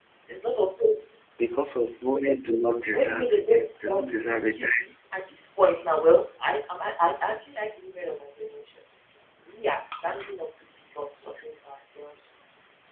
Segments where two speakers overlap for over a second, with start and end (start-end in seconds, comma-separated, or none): 2.9-4.6